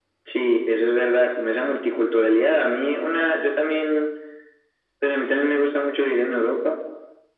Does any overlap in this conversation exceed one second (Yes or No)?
No